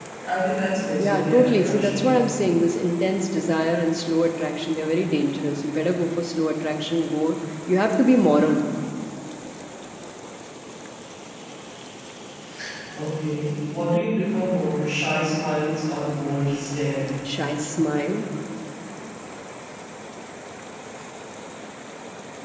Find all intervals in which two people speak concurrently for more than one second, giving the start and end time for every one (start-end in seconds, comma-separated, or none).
1.0-2.3